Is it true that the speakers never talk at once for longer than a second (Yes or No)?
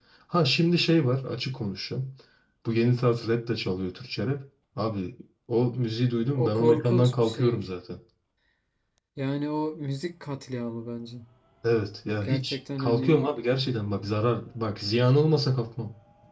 No